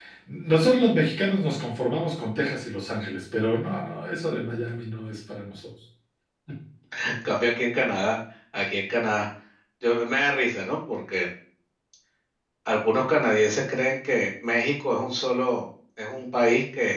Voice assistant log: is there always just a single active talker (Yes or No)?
Yes